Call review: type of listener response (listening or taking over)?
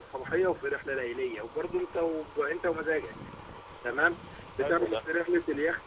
listening